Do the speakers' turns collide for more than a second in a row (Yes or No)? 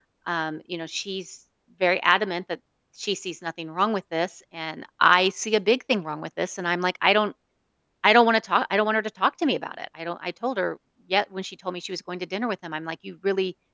No